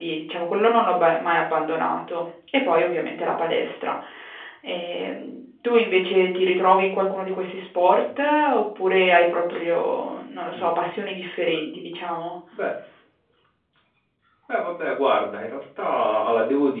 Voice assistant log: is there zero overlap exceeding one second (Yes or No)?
Yes